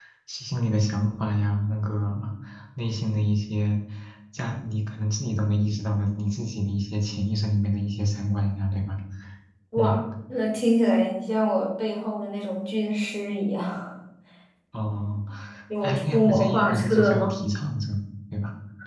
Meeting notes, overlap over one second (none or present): present